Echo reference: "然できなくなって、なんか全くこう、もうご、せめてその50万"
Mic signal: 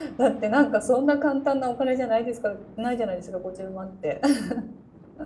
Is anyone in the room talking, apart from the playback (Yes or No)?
Yes